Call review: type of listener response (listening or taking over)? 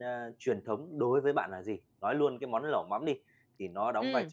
listening